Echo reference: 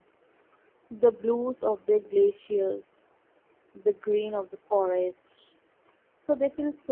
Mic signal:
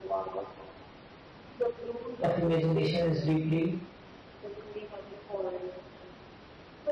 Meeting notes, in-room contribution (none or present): present